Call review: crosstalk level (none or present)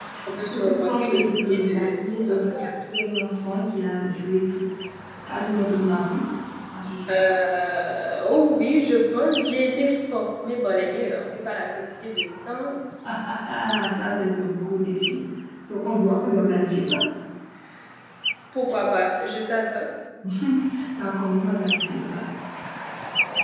present